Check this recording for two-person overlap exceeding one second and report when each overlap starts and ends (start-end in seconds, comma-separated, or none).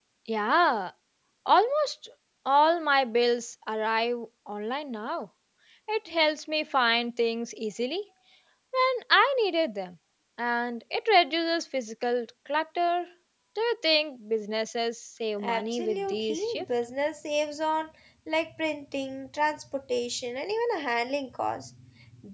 15.4-16.6